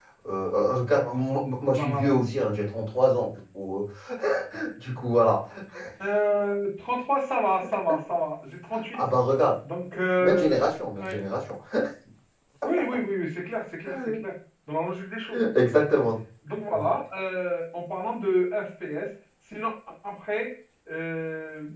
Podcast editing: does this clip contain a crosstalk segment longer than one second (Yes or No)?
No